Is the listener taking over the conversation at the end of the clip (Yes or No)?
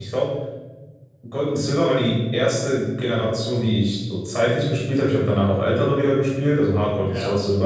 No